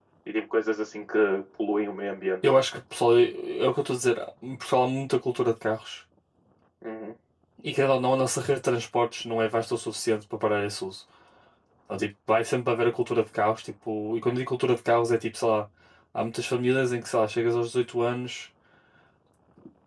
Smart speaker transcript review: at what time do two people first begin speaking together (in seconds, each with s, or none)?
none